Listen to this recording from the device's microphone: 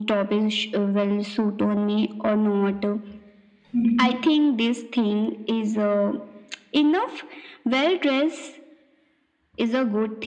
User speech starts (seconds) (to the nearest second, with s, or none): 4 s